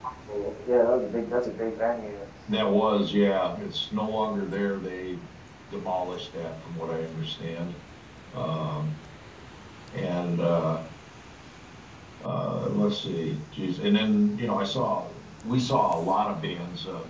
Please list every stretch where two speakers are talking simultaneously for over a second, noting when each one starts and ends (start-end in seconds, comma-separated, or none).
none